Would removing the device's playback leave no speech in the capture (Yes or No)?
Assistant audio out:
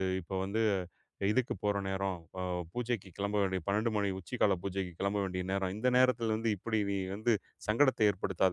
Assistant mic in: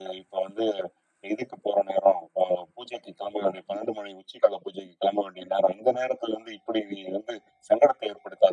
Yes